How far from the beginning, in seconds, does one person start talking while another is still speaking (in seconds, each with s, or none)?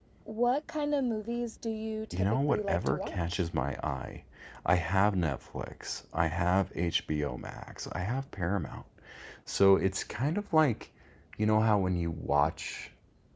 2.1 s